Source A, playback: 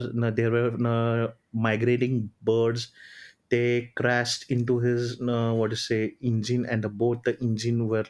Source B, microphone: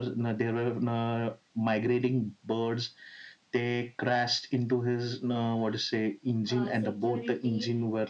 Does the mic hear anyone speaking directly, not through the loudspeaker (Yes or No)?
Yes